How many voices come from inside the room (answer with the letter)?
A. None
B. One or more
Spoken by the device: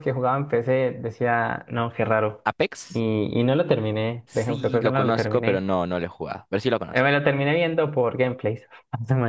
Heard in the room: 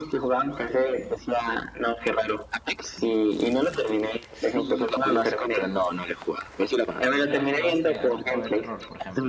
B